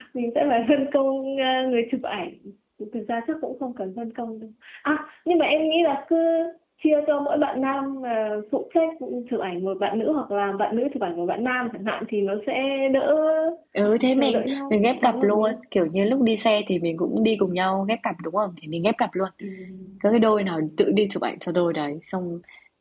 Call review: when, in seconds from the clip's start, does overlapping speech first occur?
14.1 s

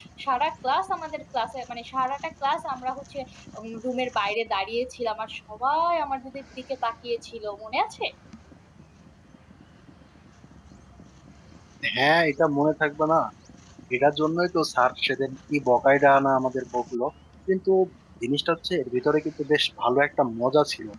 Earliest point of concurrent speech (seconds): none

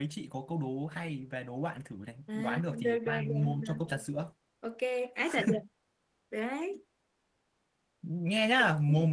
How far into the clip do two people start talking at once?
2.3 s

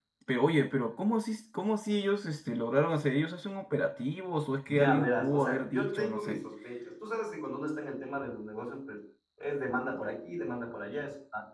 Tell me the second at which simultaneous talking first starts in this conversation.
4.7 s

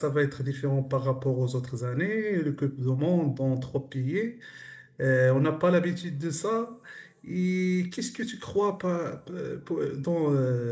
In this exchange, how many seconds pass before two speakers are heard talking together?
none

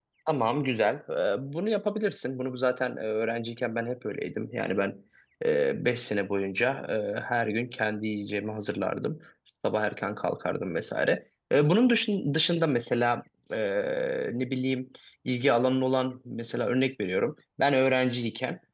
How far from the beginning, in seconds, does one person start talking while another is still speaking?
none

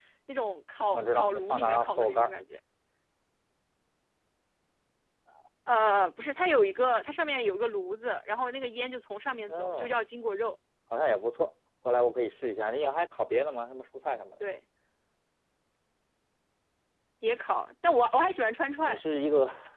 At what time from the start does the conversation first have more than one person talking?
0.9 s

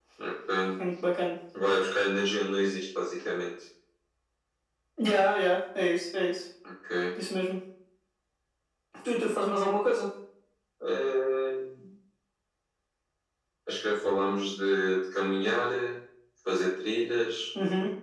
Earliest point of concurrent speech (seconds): none

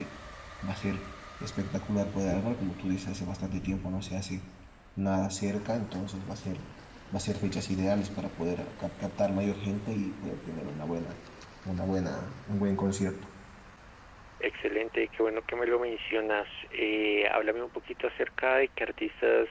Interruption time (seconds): none

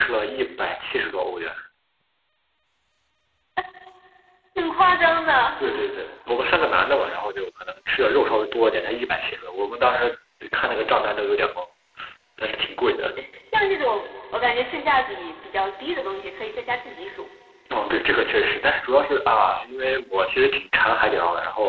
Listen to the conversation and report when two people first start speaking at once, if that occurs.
none

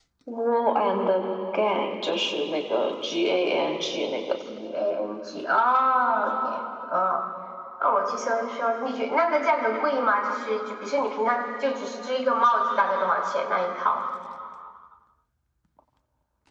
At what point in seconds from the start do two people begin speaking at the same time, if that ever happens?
none

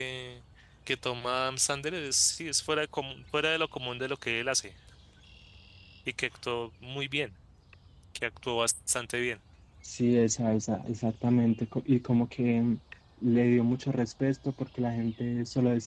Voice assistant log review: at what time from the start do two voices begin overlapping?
none

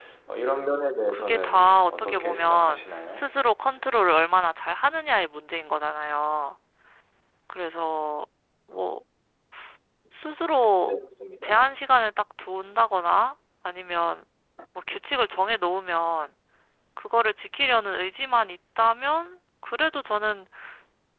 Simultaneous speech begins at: 1.1 s

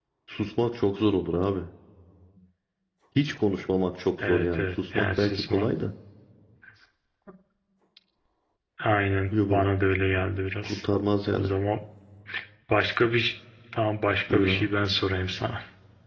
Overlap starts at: 4.3 s

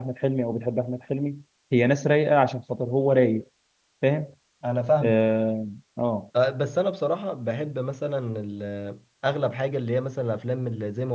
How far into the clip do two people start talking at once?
none

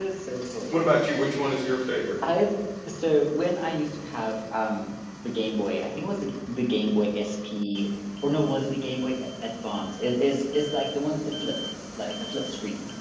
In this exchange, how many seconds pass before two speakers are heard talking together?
none

